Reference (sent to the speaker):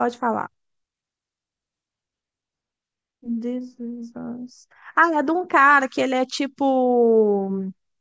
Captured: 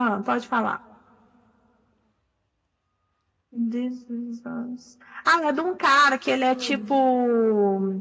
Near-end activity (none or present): present